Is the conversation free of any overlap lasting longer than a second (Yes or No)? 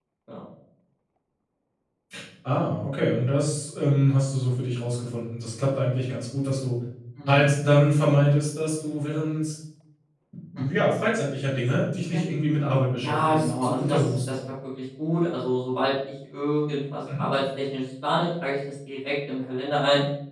No